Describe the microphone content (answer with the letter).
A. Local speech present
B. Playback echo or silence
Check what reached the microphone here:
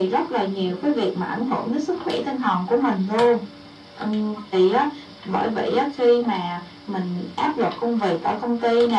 B